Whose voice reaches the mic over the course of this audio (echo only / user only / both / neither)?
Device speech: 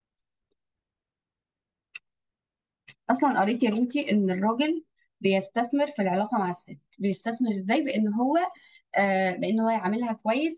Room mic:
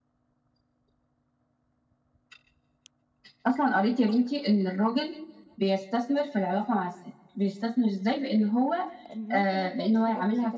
both